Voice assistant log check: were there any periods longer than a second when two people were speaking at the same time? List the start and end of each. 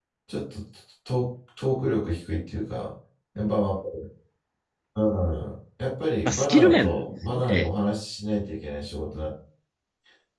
6.2-7.7

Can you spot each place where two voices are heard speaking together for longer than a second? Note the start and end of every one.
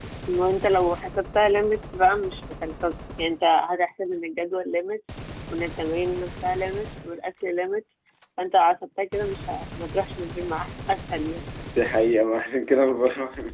none

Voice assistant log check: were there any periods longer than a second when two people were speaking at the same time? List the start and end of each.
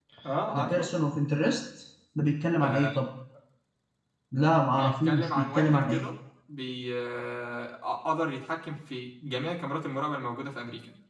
4.7-6.1

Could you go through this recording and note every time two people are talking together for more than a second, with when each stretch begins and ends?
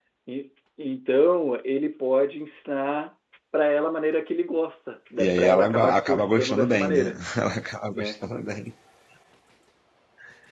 5.2-7.2

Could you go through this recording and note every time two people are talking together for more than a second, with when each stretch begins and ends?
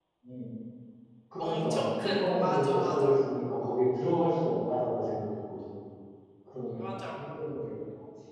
1.4-3.2

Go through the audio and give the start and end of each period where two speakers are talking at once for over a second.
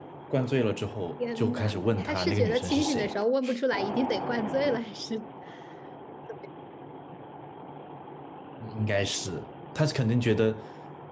1.4-3.1

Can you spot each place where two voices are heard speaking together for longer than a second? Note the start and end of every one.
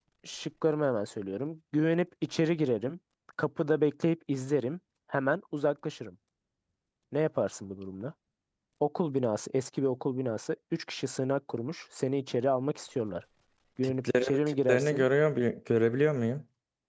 13.8-15.1

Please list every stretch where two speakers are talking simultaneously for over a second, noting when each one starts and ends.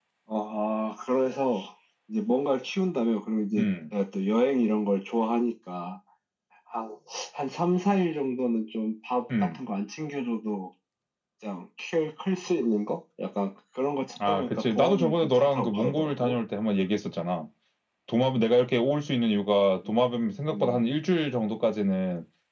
14.3-16.3

